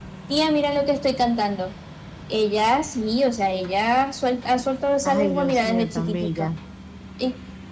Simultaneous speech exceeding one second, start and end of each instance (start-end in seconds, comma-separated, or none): 5.0-6.5